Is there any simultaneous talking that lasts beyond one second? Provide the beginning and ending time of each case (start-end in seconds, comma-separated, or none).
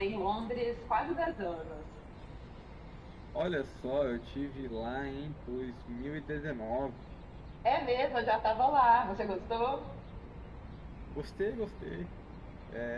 none